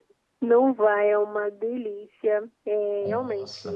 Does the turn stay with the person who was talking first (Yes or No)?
Yes